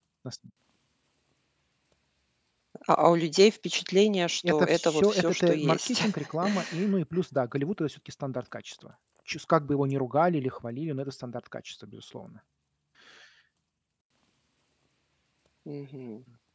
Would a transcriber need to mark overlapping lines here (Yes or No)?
Yes